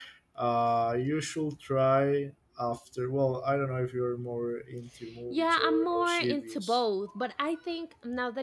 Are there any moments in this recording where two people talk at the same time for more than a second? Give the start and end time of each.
5.3-6.8

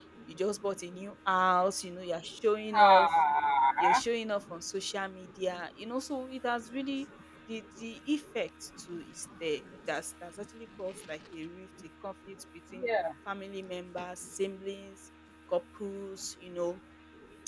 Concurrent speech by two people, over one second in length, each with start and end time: none

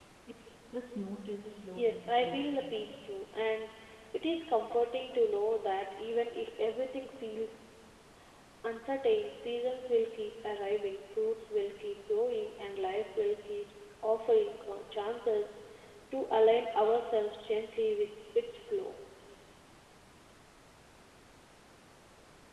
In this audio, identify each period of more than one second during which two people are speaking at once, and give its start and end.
1.8-3.1

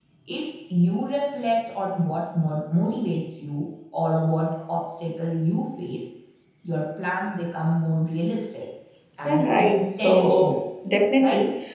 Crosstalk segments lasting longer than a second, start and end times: 9.2-10.6

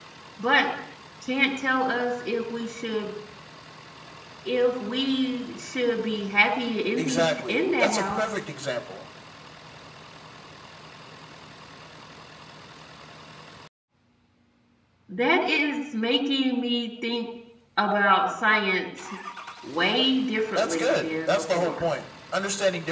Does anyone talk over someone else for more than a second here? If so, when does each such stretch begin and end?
7.0-8.2, 20.6-21.9

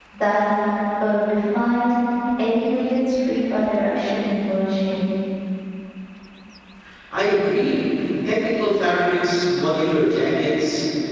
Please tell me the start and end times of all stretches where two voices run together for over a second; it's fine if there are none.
none

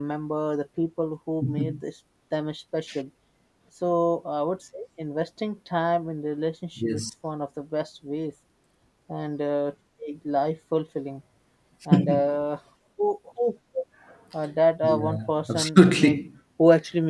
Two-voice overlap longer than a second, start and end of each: 14.8-16.2

